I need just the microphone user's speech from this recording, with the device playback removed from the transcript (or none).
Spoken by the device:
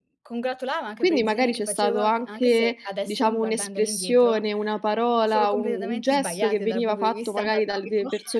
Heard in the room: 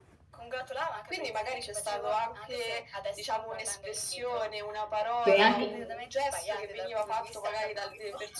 Quindi anche